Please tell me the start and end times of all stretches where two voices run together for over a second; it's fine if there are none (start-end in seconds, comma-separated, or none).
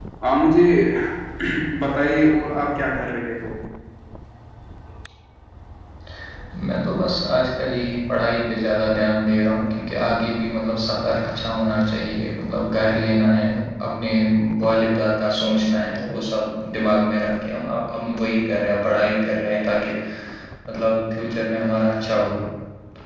none